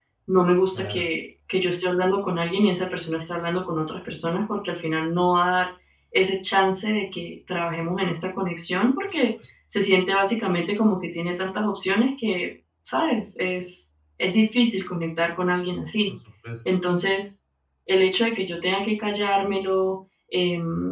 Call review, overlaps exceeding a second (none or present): none